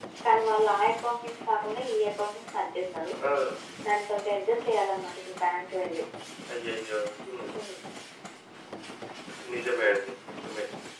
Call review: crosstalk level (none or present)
none